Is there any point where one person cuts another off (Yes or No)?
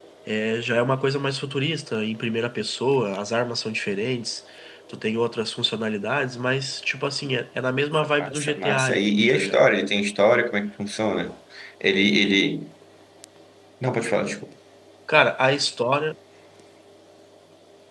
Yes